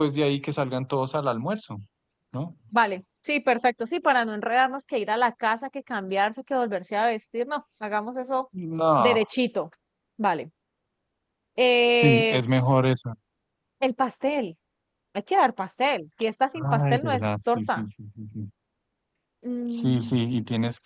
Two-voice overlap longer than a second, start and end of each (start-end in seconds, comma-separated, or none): 16.6-17.9